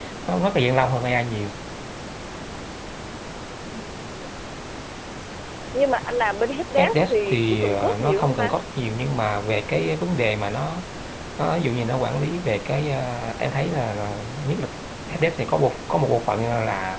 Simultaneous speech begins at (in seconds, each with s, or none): 6.8 s